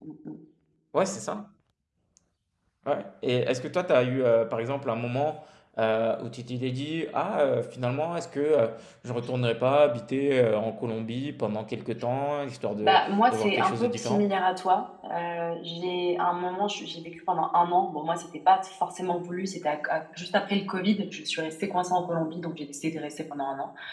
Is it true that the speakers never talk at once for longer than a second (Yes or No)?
No